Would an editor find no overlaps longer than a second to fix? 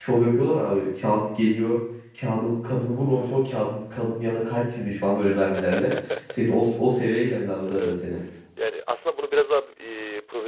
Yes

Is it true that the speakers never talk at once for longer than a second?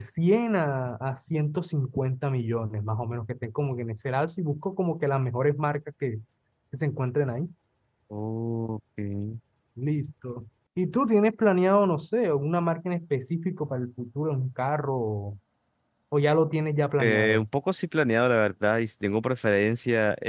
Yes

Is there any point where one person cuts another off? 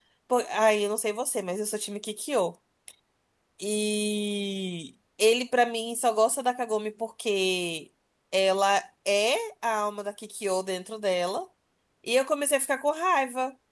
No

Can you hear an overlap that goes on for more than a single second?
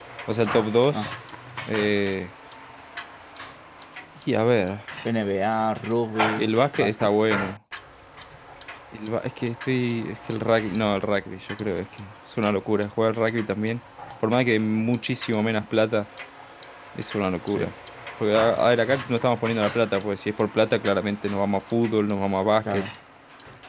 No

